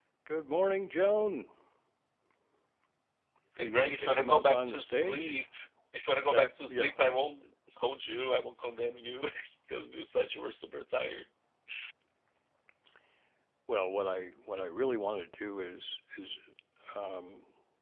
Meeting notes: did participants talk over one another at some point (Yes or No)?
Yes